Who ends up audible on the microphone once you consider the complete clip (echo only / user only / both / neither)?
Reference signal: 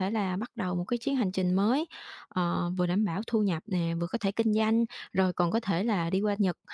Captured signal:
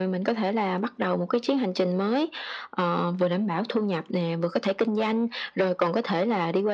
echo only